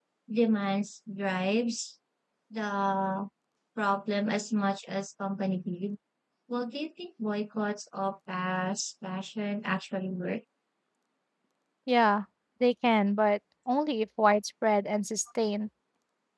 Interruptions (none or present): none